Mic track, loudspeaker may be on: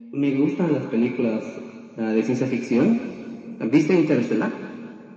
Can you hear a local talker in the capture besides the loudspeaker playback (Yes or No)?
No